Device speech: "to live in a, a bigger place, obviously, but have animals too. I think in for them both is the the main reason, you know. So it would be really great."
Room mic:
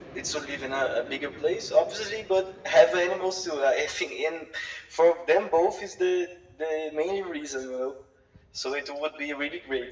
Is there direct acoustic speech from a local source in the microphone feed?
No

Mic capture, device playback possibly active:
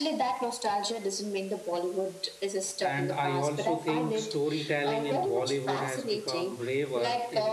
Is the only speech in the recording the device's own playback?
No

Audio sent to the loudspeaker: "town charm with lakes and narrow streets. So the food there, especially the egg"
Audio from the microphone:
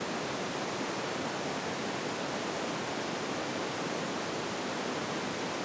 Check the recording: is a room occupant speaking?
No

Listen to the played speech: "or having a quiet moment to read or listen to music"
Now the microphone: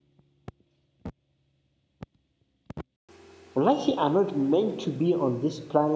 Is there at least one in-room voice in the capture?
Yes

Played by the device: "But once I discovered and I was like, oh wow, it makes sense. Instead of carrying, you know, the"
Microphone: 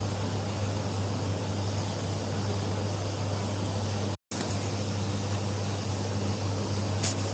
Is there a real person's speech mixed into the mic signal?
No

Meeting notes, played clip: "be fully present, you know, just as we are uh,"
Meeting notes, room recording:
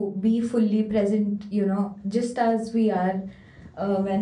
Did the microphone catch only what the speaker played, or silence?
Yes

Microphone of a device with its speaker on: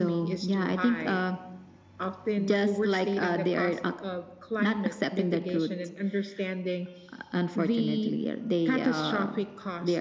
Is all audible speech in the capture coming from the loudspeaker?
Yes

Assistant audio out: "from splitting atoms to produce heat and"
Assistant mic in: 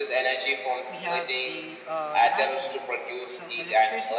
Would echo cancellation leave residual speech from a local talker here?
Yes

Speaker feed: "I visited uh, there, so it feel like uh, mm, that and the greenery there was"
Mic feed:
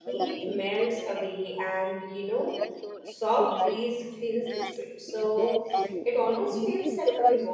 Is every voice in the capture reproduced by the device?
No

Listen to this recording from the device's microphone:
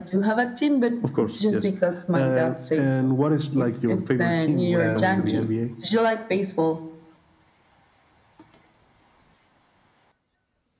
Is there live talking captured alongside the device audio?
Yes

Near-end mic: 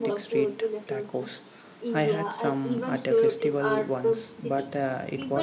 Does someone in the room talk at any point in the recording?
Yes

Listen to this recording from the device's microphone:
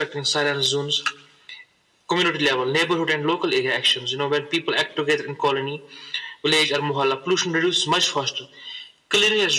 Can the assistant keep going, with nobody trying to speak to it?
Yes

